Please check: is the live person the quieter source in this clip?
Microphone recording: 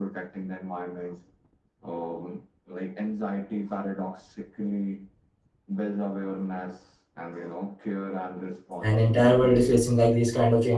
No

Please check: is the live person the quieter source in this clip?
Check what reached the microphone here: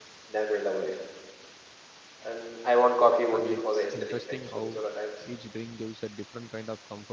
Yes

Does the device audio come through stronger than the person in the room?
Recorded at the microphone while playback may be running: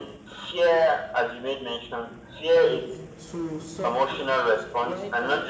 Yes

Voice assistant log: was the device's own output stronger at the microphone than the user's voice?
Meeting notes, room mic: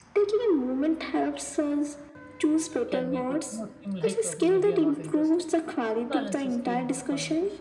Yes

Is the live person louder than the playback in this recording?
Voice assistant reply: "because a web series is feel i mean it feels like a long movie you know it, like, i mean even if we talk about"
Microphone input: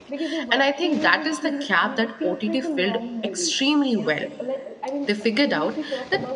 Yes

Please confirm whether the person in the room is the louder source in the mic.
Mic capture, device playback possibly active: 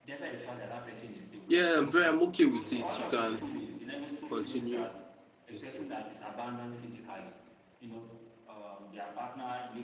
Yes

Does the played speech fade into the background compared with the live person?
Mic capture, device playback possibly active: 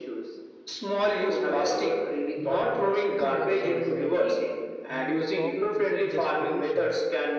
No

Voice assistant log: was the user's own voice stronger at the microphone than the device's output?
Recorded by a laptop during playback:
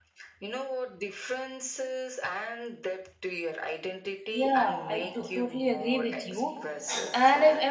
Yes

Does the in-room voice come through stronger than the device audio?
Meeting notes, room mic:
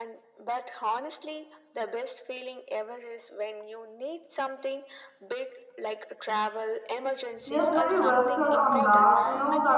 Yes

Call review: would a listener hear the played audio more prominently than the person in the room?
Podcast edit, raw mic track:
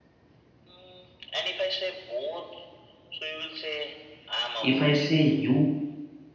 No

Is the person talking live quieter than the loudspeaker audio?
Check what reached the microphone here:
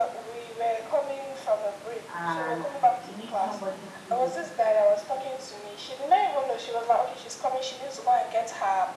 Yes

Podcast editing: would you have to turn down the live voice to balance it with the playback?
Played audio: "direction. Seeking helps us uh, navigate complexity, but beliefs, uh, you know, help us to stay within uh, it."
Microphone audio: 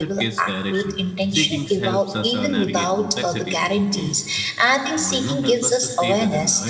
Yes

